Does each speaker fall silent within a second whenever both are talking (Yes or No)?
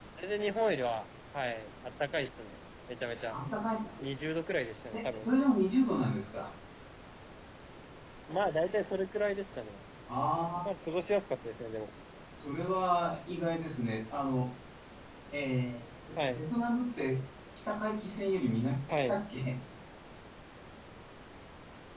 Yes